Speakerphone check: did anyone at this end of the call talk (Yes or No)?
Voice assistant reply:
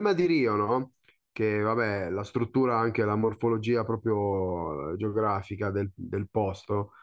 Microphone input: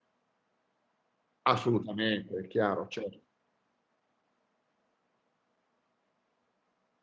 Yes